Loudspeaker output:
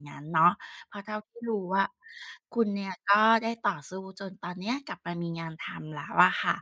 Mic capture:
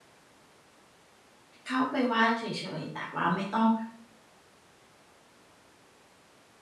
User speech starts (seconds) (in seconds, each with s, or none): 1.7 s